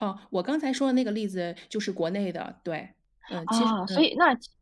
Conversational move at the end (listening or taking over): taking over